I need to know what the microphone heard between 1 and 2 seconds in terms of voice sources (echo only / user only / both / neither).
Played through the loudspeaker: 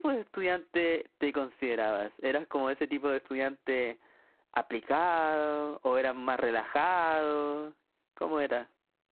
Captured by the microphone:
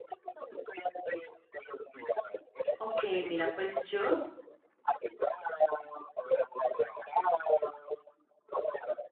echo only